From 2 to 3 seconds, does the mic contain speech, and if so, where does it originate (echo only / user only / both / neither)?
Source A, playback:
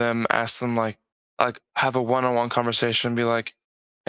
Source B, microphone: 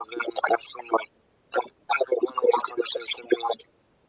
echo only